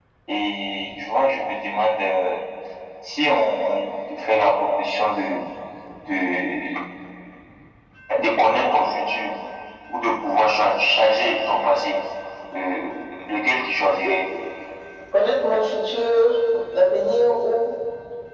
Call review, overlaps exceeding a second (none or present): none